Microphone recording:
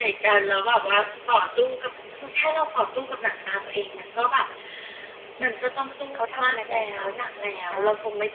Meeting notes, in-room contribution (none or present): present